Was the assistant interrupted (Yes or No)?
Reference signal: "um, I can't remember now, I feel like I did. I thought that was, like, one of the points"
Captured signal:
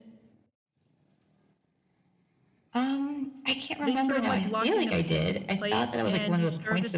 Yes